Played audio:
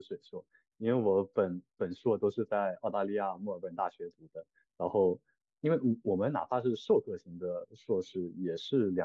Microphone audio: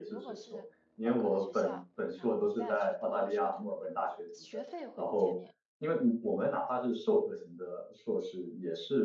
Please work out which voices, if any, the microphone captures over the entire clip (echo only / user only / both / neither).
both